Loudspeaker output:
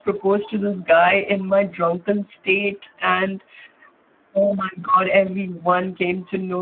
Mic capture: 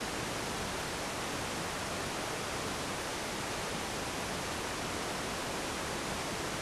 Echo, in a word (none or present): none